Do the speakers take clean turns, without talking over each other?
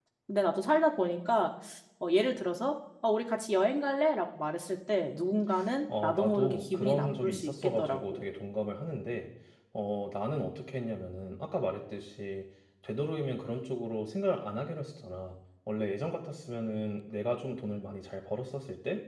No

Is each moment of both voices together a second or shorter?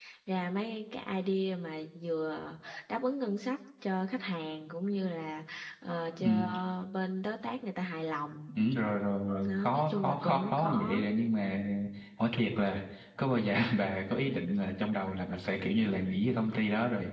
No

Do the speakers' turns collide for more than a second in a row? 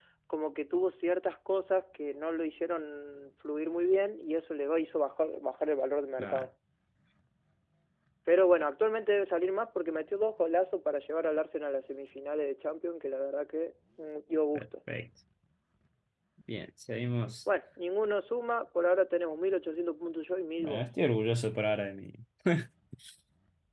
No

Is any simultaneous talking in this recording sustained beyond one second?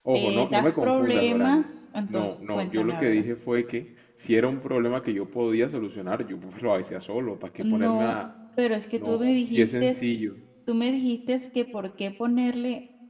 Yes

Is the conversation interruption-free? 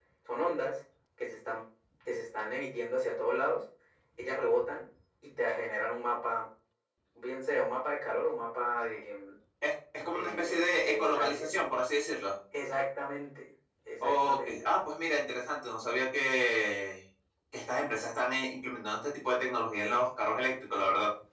No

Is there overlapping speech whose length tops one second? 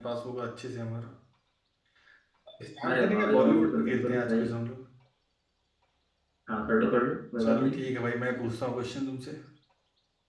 Yes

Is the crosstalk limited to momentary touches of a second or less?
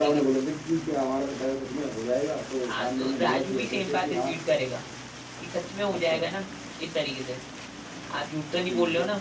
No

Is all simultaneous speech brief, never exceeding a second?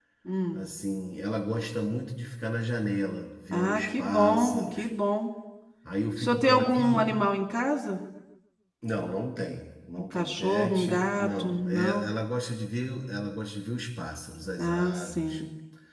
No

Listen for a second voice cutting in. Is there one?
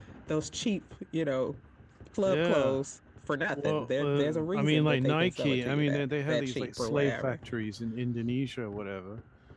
Yes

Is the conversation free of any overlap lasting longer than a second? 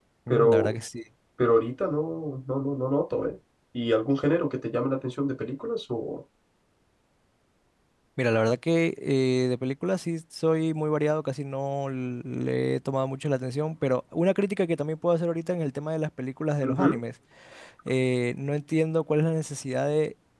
Yes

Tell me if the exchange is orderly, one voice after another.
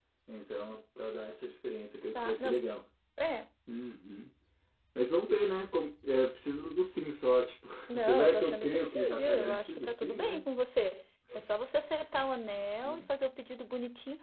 No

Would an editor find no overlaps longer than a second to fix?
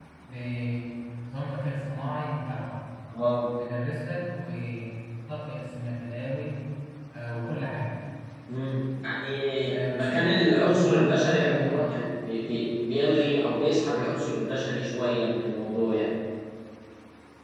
No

